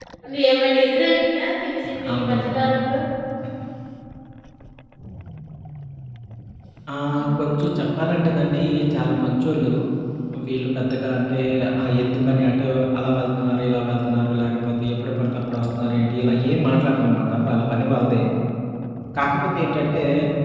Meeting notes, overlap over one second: none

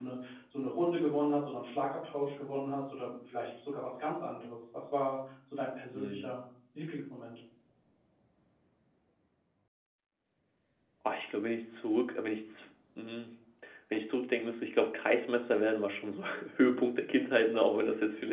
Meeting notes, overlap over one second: none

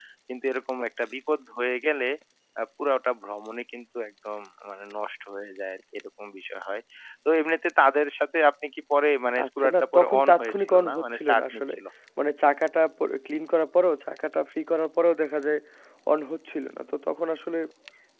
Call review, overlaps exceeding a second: present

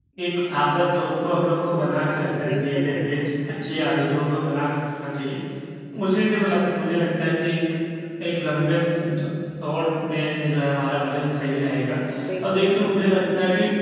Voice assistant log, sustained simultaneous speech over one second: present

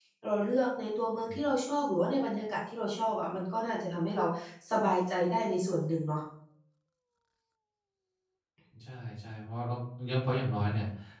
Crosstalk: none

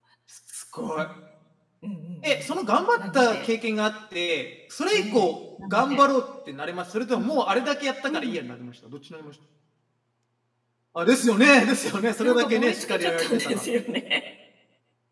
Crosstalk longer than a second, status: present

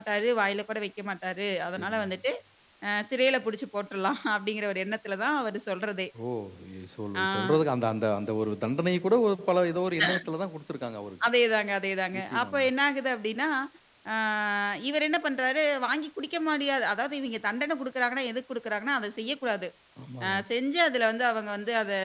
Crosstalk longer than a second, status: none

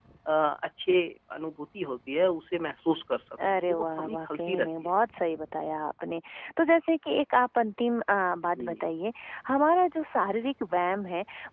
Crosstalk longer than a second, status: present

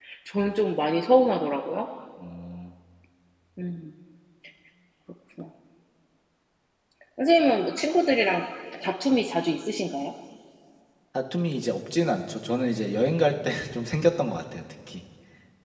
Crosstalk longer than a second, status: none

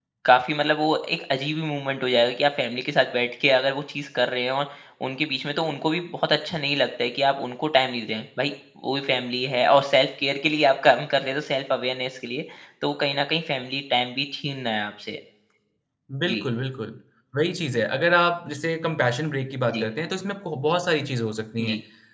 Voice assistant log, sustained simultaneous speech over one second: none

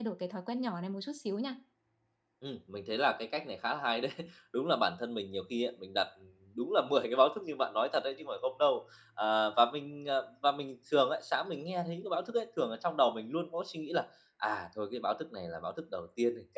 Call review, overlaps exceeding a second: none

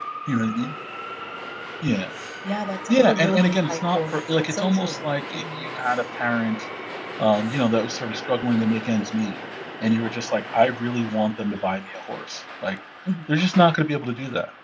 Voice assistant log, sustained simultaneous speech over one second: present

